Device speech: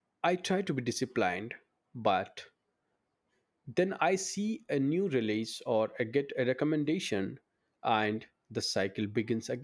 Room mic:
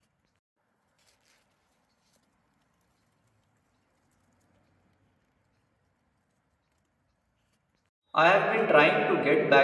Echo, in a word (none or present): none